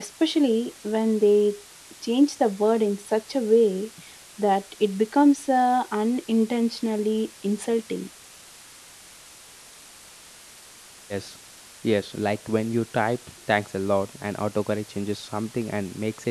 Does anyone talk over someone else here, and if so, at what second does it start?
none

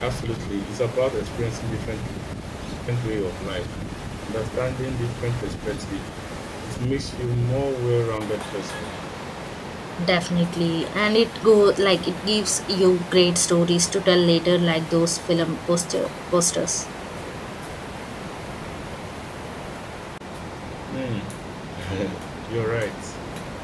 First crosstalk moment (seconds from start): none

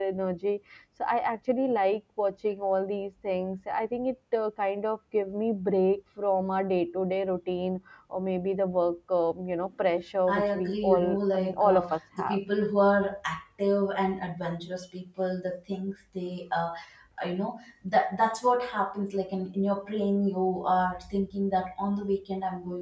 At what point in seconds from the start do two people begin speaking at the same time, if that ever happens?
10.3 s

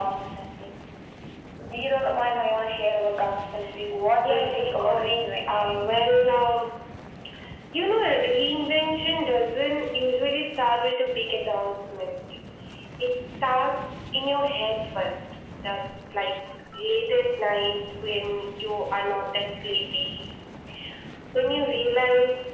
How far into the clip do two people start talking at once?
4.1 s

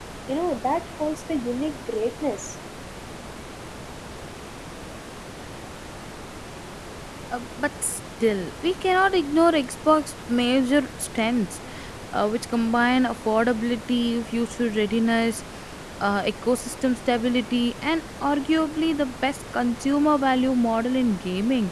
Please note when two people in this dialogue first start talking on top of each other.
none

